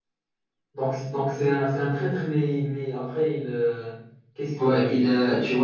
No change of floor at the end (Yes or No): No